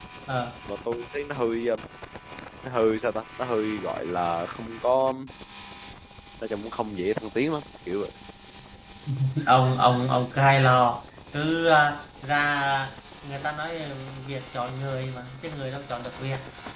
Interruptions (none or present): none